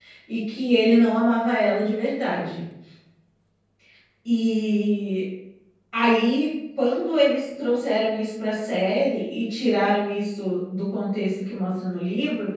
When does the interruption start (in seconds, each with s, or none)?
none